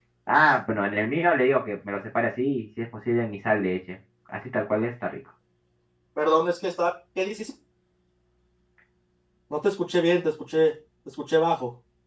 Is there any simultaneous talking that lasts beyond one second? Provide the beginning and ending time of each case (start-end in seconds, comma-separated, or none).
none